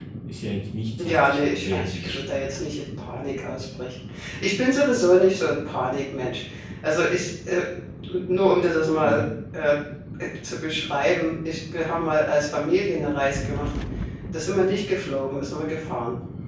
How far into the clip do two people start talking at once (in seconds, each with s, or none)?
1.0 s